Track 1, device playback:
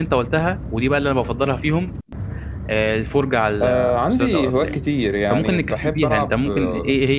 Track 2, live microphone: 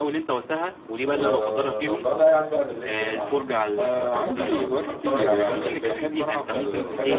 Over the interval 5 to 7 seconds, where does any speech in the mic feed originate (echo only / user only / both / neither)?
both